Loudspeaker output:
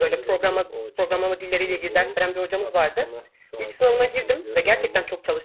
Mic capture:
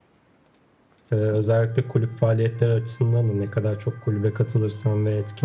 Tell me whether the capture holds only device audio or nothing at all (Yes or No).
No